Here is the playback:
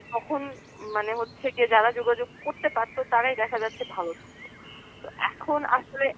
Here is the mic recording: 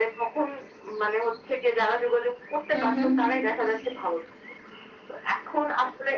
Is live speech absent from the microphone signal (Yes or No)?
No